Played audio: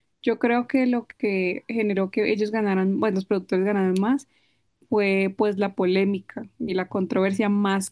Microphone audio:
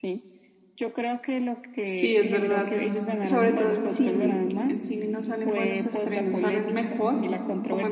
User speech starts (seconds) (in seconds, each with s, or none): 1.8 s